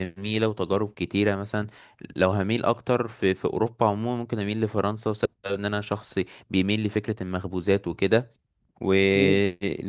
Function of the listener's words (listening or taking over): listening